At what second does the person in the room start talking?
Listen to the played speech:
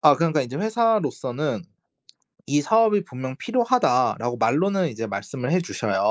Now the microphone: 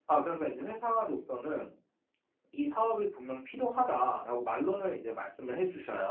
none

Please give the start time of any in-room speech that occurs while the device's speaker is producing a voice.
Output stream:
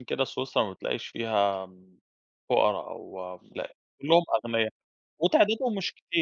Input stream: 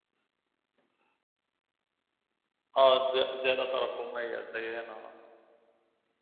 2.8 s

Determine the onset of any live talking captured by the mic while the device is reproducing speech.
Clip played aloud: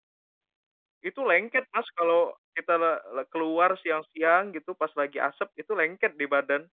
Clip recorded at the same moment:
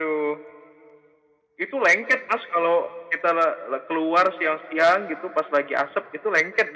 none

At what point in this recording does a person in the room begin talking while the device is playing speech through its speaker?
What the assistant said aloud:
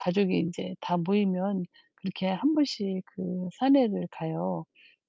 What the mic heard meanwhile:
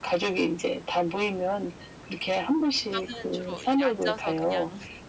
2.9 s

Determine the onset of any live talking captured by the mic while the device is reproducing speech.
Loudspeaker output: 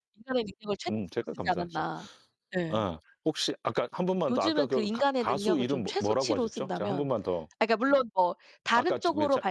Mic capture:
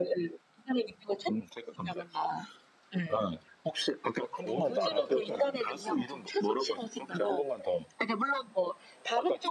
4.4 s

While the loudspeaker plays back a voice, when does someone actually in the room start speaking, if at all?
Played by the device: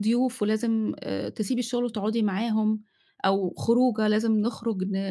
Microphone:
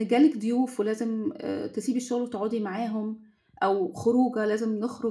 none

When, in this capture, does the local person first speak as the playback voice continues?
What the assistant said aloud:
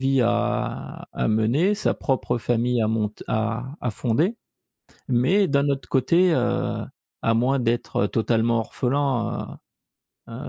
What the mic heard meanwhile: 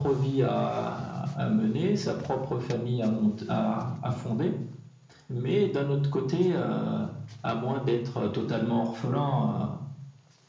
none

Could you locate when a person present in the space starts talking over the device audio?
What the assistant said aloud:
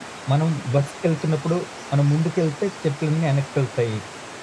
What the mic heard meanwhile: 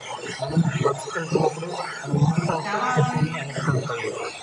2.3 s

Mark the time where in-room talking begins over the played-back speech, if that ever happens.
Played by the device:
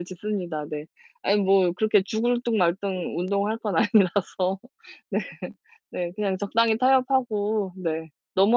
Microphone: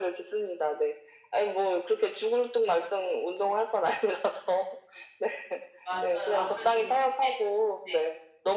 5.8 s

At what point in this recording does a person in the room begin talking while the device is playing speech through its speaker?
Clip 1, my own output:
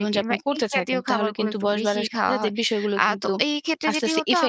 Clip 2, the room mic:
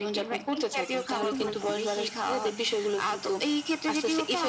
1.3 s

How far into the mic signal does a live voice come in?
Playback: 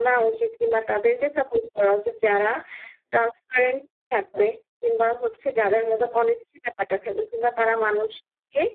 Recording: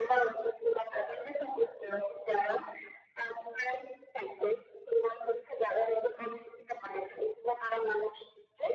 none

